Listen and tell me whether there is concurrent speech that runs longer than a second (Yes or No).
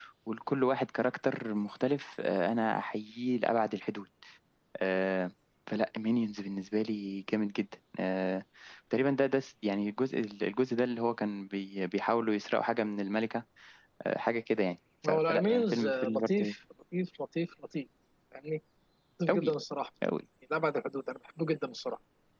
Yes